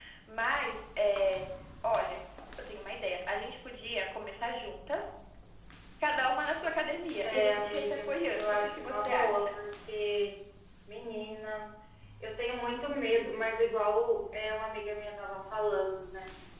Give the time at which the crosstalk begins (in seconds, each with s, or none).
7.2 s